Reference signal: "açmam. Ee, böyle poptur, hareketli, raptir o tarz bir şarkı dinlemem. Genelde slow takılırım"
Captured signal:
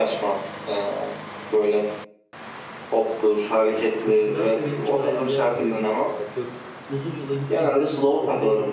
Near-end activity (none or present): present